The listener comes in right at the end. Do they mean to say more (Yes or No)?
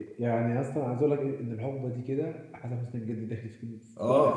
Yes